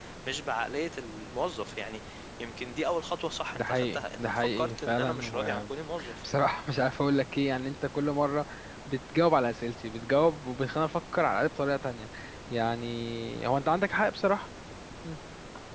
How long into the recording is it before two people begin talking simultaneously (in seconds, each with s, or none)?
3.5 s